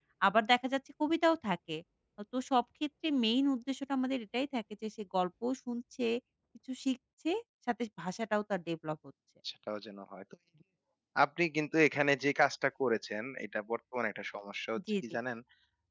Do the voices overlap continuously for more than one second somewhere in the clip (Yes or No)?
No